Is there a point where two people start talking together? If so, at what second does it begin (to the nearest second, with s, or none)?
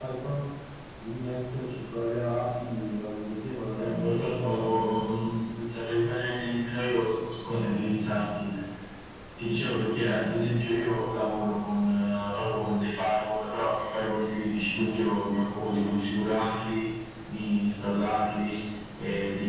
4 s